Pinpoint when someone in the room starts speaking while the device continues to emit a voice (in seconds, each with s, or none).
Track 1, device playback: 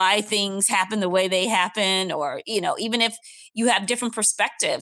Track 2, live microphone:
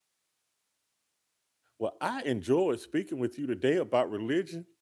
1.8 s